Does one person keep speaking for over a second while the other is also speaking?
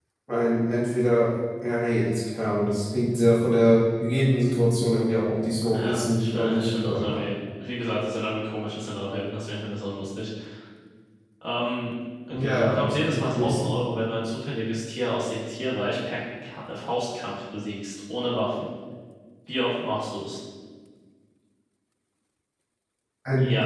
Yes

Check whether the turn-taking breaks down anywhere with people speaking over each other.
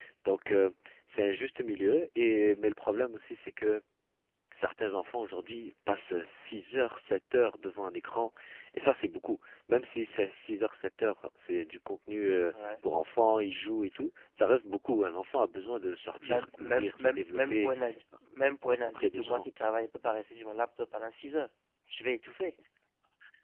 Yes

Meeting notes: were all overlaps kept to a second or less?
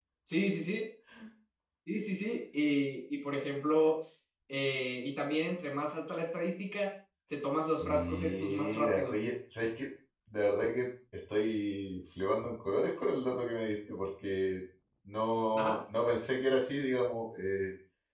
No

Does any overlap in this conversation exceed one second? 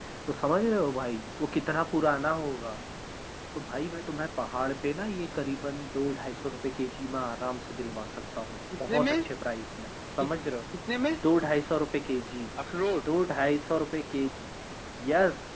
No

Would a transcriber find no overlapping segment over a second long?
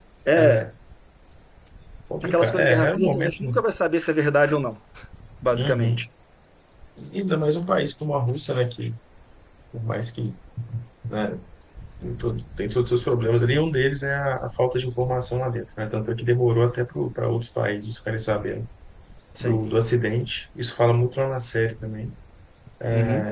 No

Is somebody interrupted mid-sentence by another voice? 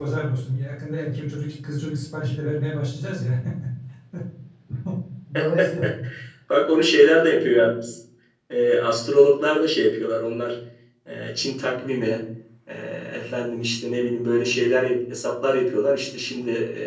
No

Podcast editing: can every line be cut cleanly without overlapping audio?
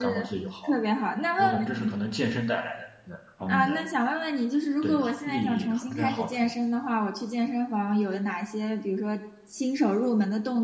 No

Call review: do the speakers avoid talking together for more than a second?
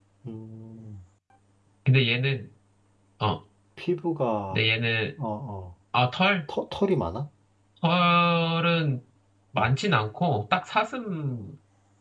Yes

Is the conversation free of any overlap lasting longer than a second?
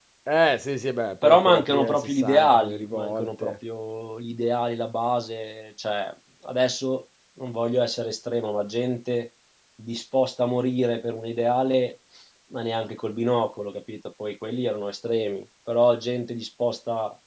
No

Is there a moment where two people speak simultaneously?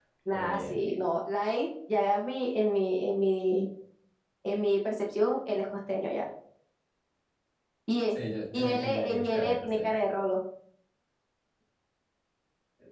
Yes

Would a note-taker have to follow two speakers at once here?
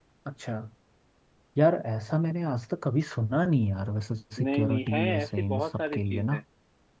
Yes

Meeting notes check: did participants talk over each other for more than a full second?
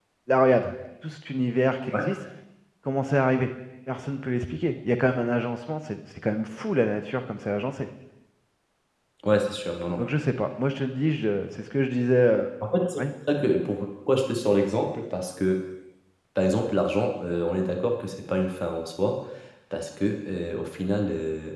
No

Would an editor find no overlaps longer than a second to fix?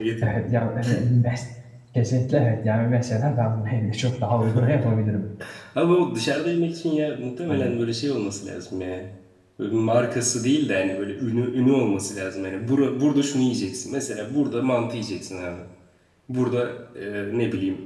Yes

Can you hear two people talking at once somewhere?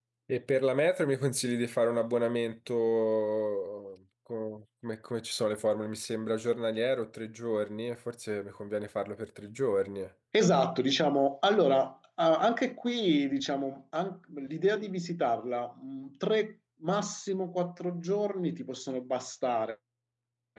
No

